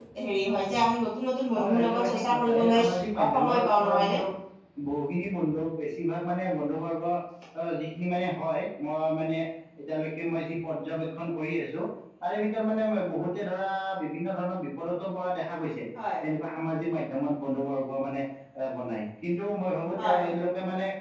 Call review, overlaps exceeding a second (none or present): present